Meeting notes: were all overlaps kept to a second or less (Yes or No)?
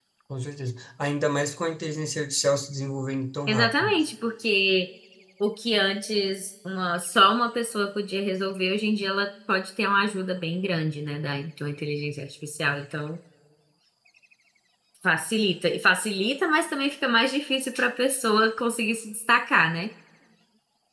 Yes